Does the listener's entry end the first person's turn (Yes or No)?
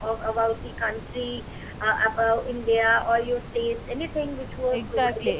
Yes